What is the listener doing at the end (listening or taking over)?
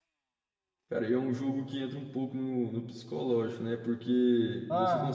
listening